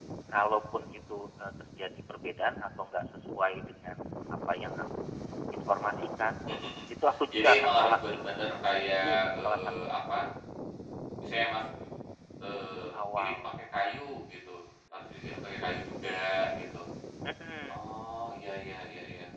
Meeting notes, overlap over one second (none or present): present